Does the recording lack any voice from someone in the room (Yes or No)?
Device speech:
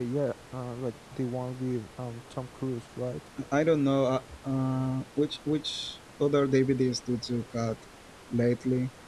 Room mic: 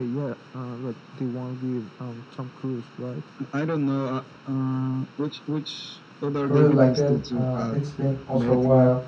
No